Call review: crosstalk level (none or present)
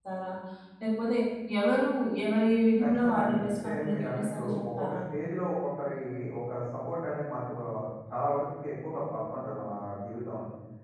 present